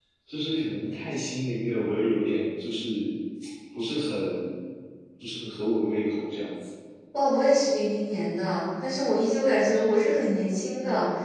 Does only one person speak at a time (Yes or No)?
Yes